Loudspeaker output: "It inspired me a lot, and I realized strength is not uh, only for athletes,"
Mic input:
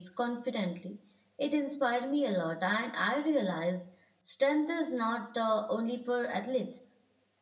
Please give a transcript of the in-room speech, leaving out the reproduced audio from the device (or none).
none